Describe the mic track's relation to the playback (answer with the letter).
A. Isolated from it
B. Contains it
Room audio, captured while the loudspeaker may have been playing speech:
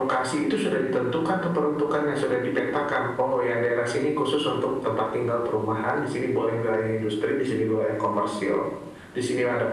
B